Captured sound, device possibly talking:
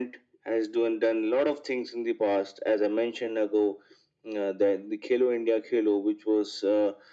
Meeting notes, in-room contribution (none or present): none